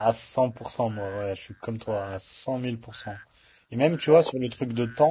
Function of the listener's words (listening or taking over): listening